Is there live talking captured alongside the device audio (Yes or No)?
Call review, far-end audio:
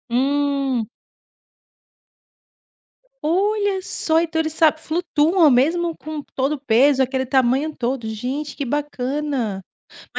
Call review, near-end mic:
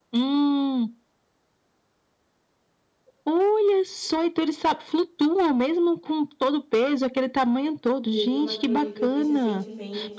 Yes